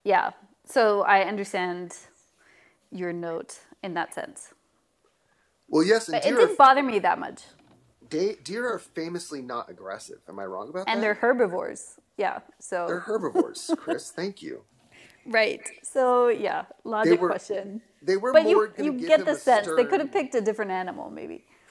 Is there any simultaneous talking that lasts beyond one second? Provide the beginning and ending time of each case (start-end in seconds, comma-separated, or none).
18.3-20.2